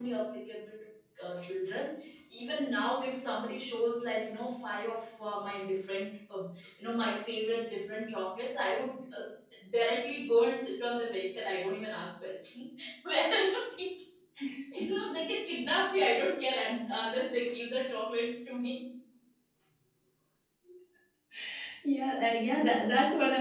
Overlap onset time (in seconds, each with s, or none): none